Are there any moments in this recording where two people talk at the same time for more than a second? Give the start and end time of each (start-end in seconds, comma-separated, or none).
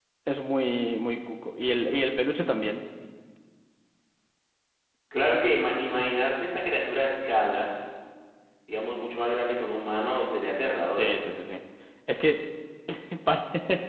none